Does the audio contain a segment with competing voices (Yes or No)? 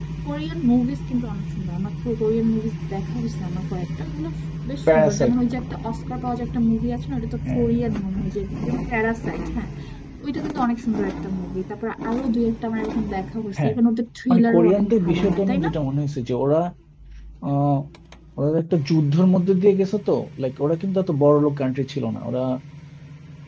Yes